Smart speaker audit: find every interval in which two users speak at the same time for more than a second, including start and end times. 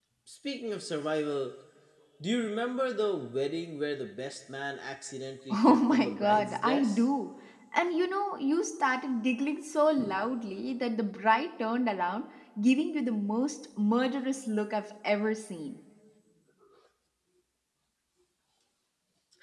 5.5-7.0

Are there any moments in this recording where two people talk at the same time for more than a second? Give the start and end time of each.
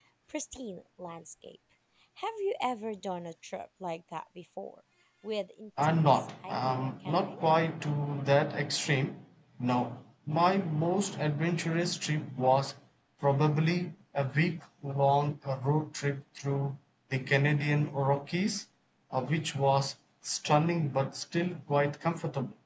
5.8-7.4

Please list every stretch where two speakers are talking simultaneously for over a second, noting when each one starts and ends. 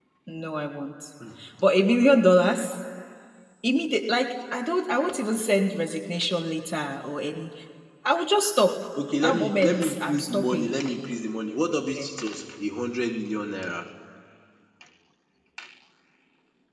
9.2-10.7

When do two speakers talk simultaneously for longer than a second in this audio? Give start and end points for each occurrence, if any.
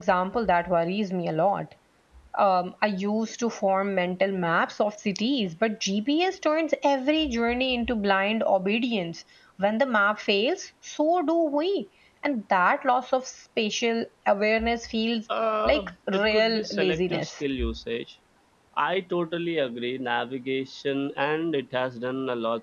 15.7-17.4

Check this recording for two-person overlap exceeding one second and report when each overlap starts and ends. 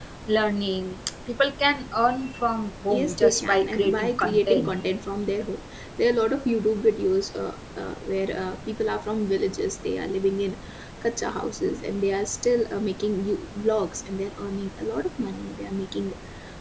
2.9-4.7

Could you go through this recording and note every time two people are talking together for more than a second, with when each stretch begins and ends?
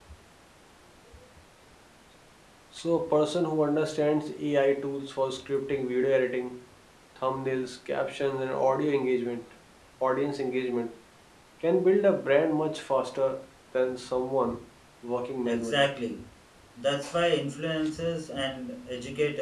none

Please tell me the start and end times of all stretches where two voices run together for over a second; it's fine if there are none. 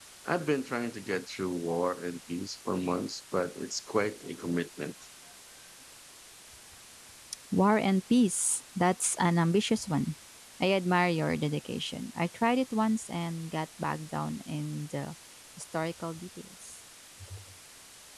none

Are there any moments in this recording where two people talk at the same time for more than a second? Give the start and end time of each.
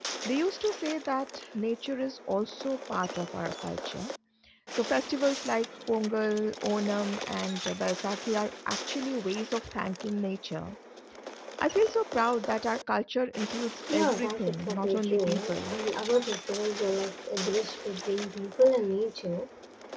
13.9-15.8

